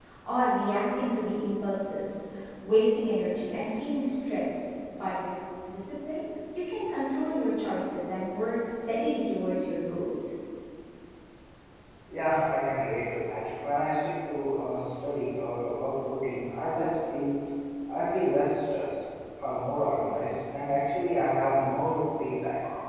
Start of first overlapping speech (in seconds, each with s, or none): none